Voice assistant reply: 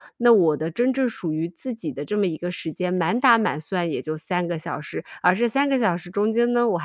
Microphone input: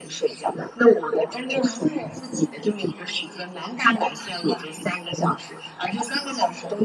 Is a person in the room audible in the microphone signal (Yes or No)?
Yes